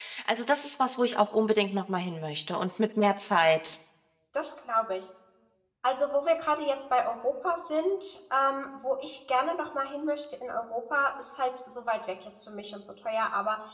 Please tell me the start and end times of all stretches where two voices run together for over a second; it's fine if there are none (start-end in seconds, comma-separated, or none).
none